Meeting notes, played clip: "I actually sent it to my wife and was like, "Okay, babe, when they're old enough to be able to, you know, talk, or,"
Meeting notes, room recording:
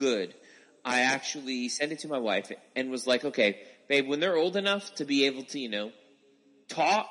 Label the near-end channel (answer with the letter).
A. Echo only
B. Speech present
A